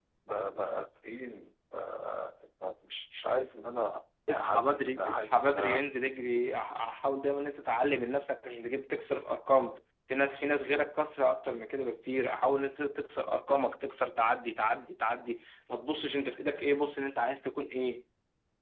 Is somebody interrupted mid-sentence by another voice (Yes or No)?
Yes